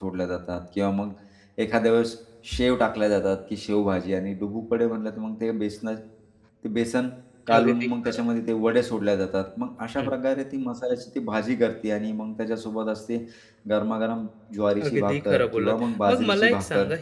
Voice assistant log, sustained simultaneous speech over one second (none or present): present